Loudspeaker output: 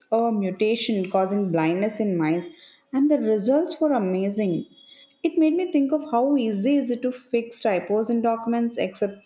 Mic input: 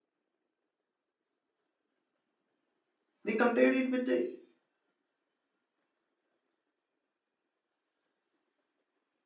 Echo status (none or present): none